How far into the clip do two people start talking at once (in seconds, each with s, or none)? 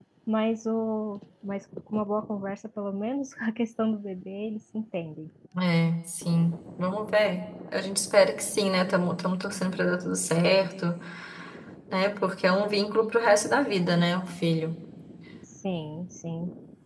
none